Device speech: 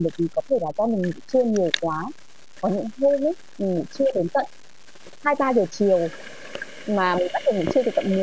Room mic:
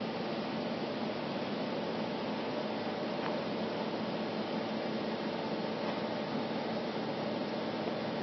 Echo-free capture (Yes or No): Yes